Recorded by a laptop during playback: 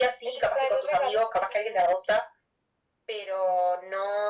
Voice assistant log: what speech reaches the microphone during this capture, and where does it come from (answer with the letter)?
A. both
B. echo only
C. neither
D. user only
B